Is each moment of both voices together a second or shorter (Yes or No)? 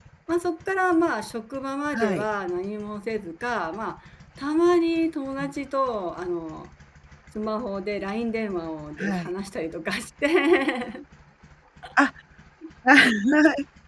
Yes